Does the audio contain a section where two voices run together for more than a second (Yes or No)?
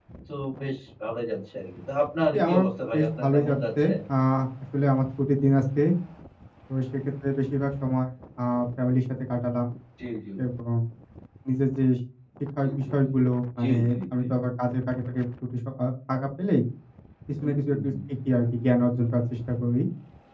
Yes